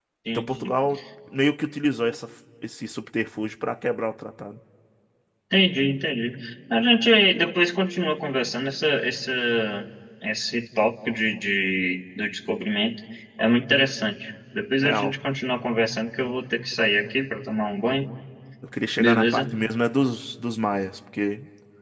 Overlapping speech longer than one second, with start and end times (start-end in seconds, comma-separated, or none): none